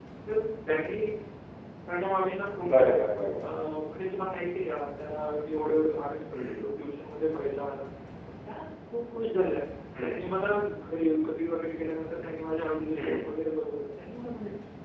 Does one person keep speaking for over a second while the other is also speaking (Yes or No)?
No